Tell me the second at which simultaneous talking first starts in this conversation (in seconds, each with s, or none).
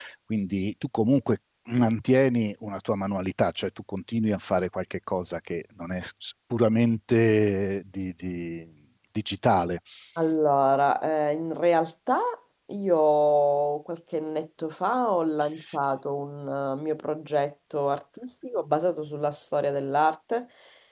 none